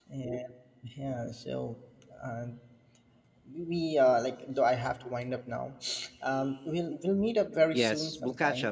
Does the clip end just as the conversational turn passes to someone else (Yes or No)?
Yes